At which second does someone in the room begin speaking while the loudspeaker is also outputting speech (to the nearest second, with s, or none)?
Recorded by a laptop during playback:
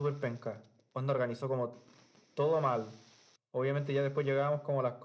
none